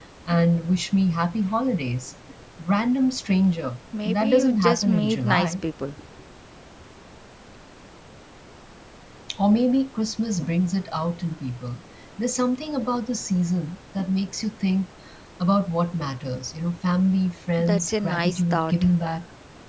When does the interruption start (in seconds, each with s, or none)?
4.0 s